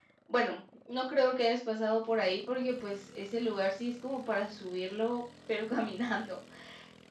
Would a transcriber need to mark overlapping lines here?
No

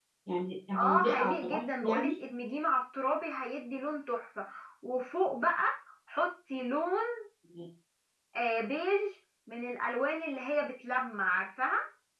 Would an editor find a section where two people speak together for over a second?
Yes, from 0.8 s

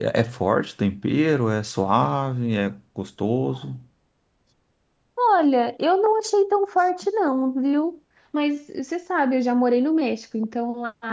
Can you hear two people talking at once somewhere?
No

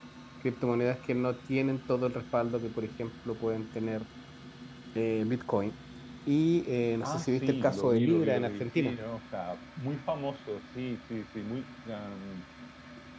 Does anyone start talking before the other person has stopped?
Yes, from 7.0 s

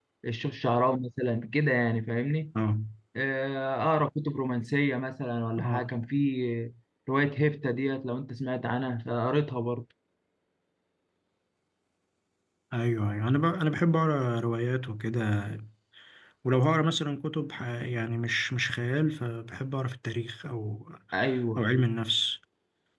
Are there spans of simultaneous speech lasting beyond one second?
No

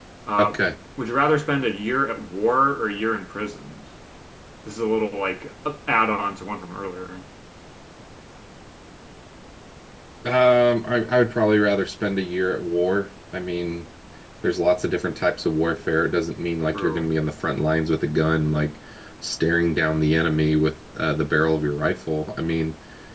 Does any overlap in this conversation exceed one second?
No

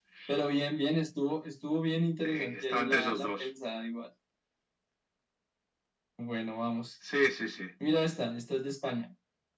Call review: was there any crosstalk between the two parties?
Yes, from 2.2 s

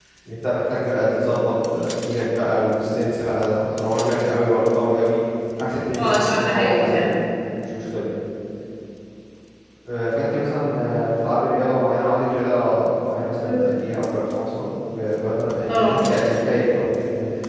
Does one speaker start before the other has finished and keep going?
Yes, from 6.0 s

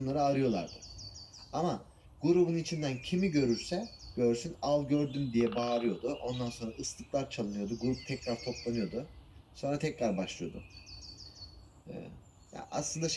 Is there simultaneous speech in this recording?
No

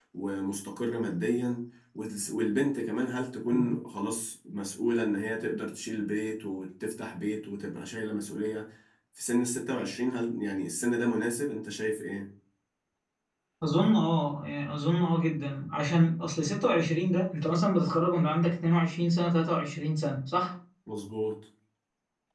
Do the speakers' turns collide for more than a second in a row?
No

